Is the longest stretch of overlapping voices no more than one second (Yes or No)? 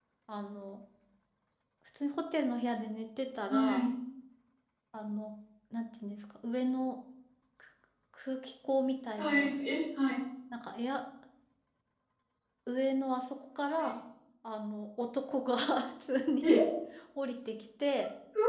Yes